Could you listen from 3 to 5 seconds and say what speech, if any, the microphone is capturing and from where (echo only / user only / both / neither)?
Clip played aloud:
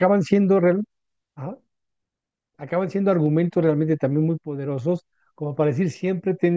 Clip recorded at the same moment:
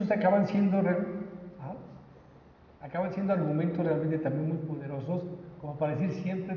echo only